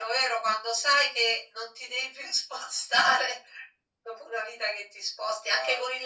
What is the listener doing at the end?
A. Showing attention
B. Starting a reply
A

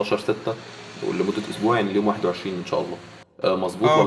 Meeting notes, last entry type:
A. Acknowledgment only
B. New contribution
B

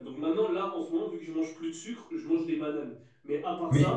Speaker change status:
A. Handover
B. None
B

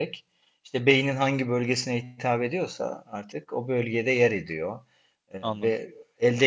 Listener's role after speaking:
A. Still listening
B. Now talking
A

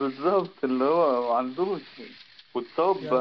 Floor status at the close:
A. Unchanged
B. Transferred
A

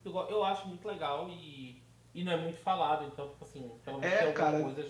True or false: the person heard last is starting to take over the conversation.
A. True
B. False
A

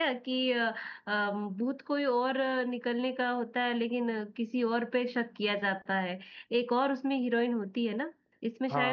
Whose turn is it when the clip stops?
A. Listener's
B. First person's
A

